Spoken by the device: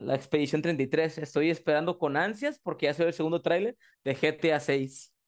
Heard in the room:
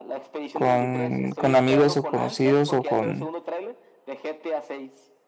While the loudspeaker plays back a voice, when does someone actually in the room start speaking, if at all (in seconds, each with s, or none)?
0.5 s